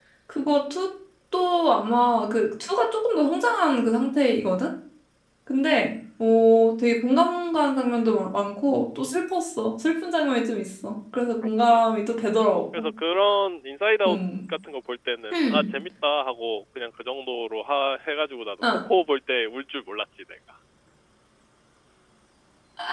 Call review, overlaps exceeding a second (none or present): none